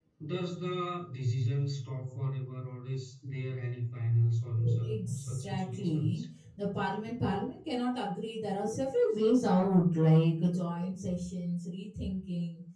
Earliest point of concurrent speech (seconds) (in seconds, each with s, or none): 4.6 s